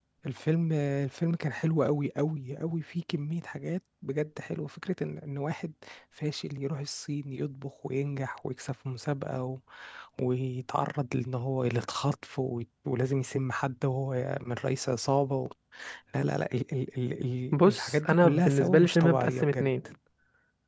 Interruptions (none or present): present